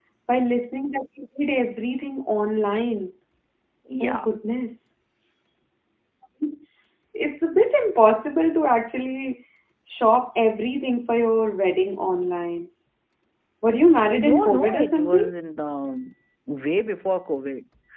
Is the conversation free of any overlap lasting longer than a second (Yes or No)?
No